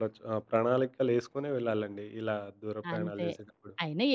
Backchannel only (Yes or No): No